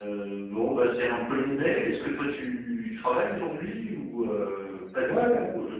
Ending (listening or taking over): taking over